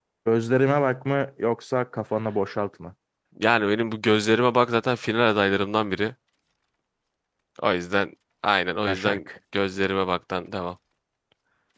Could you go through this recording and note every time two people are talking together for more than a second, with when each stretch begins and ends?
none

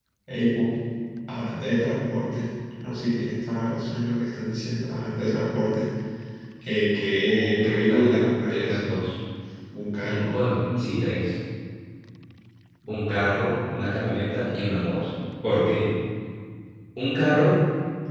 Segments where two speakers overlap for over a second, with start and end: 7.3-8.8

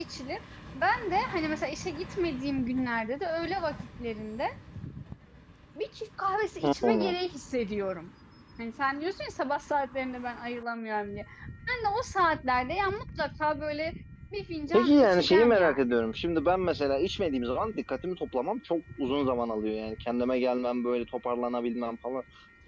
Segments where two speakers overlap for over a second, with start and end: 14.7-16.0

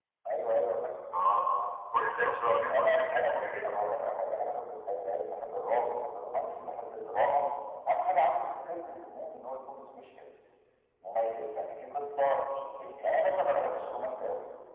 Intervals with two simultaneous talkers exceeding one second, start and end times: 2.4-3.7

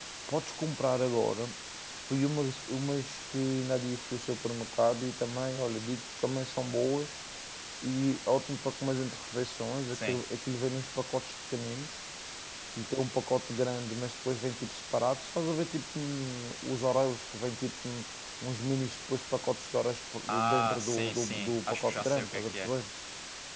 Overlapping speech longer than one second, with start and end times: 20.3-22.7

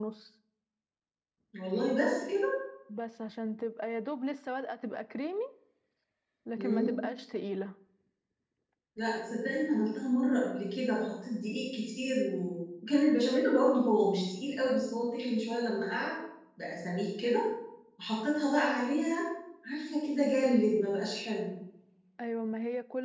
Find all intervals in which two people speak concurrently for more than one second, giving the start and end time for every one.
none

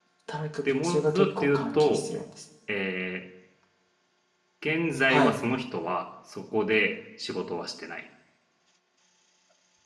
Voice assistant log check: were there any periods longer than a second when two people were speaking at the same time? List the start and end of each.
0.8-2.1

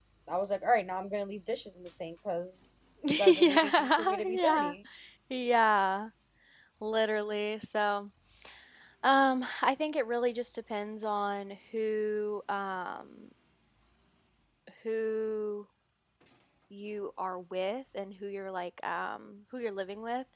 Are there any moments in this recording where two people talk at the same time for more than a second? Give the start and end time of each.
3.1-4.7

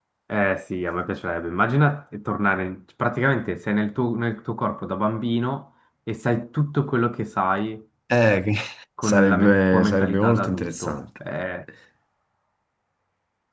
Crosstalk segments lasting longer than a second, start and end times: 9.0-11.0

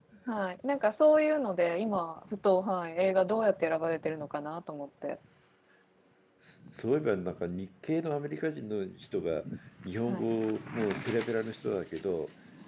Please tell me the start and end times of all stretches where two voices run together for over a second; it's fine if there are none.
none

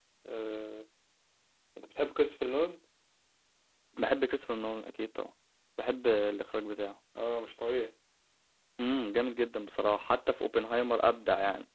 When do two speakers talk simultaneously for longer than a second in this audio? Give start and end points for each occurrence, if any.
none

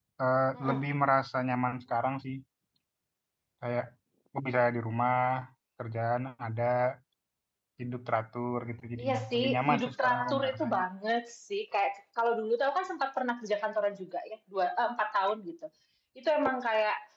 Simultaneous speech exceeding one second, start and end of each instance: 9.0-10.8

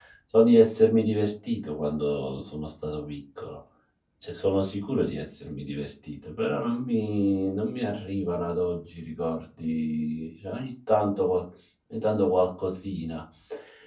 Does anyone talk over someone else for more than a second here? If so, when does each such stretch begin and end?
none

